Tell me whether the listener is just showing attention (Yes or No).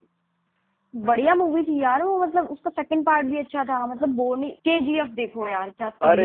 No